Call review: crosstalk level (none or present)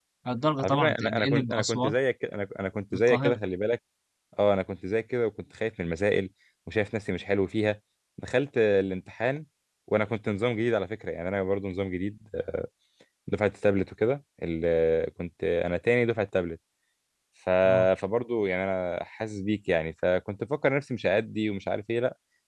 present